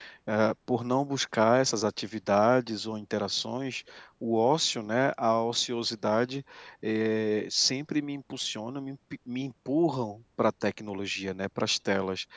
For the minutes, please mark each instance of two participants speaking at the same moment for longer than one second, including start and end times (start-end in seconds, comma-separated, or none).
none